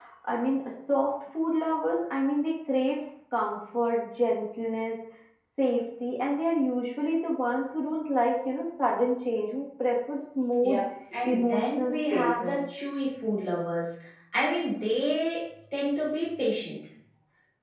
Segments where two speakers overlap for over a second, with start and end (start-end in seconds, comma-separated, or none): 11.2-12.6